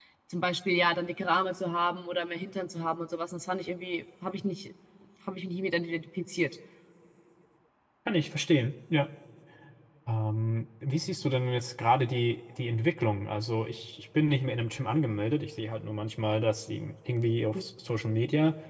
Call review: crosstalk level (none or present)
none